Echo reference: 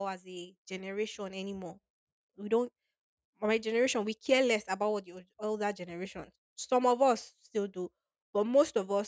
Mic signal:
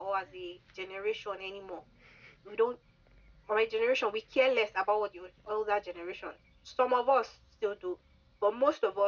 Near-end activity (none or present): none